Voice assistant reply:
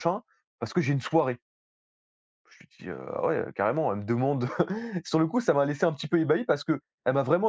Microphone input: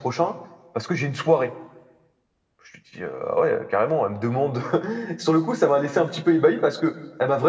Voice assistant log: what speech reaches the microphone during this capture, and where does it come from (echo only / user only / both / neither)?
echo only